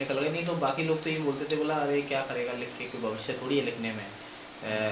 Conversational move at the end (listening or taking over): listening